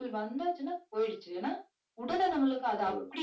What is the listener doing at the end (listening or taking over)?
listening